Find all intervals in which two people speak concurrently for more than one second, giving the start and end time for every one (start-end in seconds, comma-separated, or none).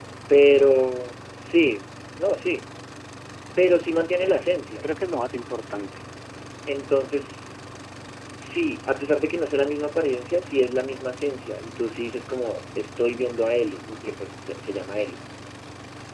none